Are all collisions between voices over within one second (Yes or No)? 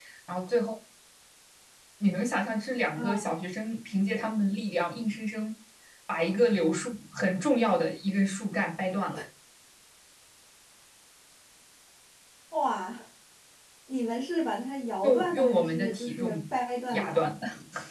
No